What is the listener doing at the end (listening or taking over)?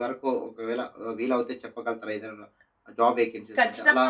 taking over